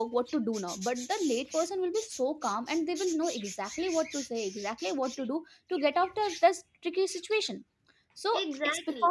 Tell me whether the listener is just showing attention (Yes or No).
Yes